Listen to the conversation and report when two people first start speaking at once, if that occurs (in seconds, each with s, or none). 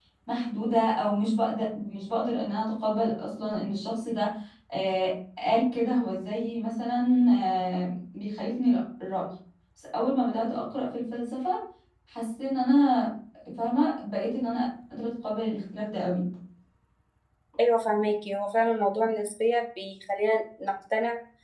none